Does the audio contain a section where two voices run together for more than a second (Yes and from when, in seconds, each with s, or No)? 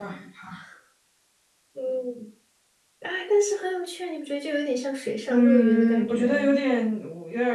Yes, from 5.3 s